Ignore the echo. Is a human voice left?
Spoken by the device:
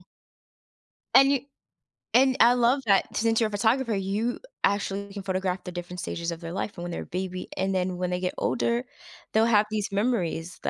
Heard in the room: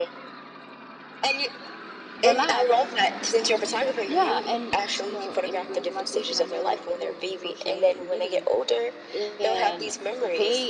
Yes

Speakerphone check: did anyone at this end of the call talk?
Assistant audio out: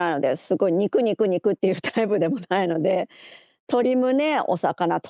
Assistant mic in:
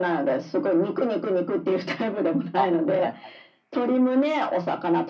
Yes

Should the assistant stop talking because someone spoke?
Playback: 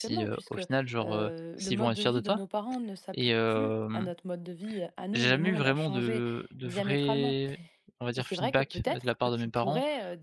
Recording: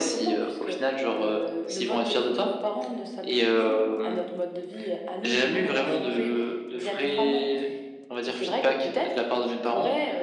No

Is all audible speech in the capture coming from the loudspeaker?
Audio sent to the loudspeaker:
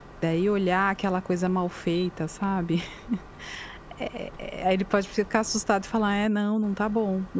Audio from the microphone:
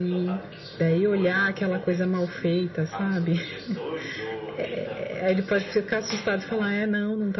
No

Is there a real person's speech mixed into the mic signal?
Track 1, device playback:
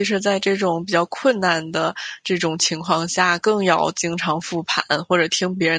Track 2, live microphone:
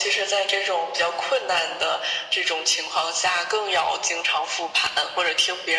No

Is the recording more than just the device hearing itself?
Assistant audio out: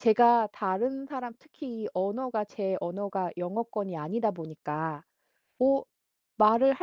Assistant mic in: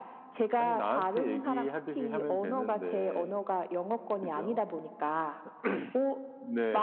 Yes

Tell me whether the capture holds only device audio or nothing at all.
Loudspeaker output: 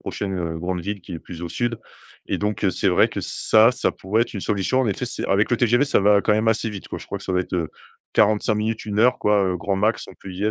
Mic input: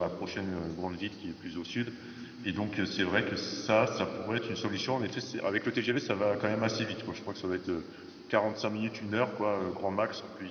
Yes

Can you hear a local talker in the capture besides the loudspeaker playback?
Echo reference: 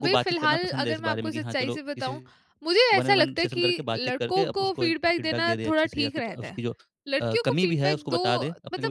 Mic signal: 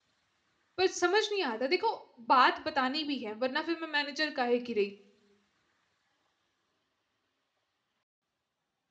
Yes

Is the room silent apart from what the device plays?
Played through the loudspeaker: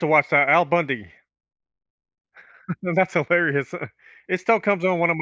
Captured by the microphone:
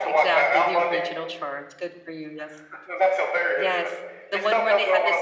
No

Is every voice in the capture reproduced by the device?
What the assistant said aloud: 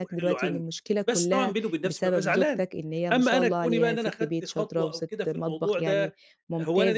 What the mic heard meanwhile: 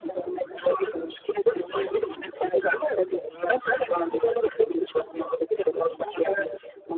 Yes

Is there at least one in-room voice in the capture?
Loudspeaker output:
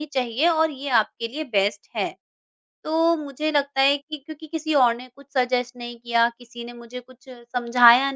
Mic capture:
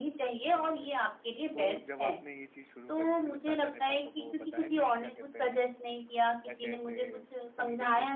Yes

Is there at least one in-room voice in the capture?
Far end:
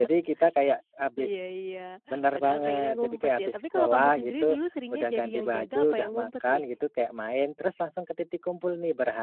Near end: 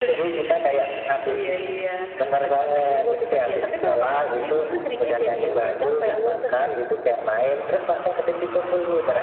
No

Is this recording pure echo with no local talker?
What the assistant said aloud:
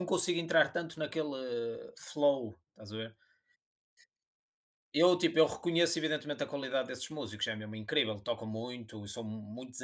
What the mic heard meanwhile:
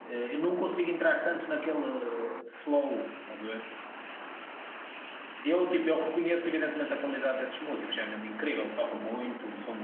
Yes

